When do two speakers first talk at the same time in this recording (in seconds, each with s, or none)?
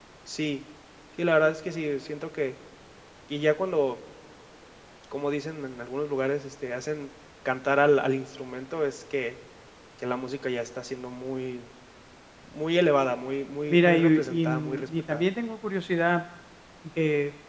13.7 s